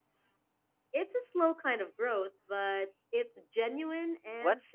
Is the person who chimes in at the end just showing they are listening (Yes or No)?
No